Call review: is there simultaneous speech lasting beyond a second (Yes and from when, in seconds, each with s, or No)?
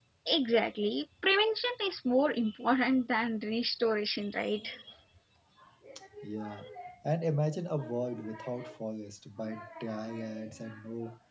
No